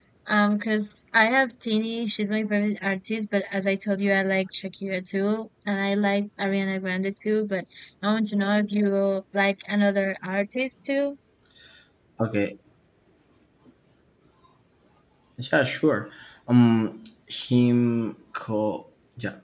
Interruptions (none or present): none